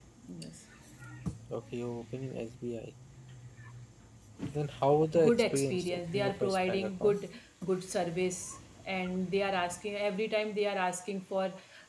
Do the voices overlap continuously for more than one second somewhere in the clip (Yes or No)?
Yes